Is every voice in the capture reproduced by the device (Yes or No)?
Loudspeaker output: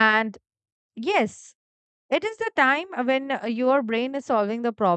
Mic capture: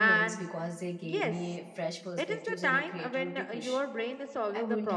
No